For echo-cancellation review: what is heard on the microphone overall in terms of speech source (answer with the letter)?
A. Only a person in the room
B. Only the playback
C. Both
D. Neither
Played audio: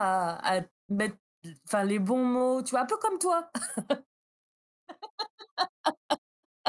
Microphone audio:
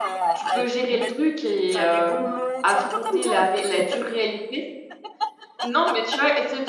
C